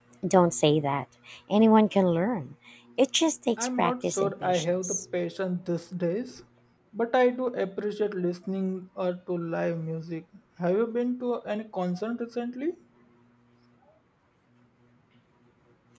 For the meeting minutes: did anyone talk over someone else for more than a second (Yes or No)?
Yes